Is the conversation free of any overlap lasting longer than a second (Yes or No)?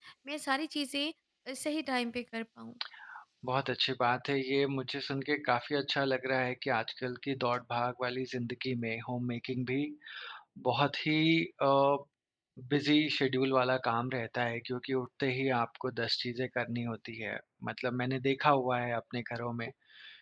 Yes